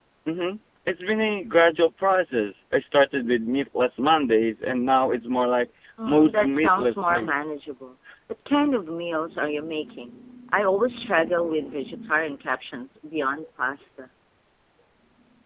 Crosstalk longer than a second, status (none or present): present